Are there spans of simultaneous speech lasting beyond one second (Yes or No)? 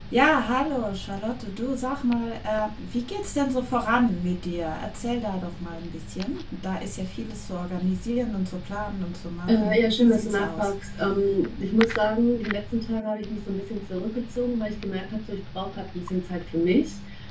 Yes